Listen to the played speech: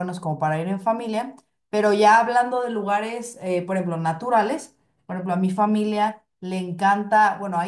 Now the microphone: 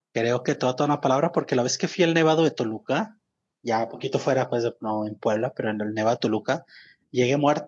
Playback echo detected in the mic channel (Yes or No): No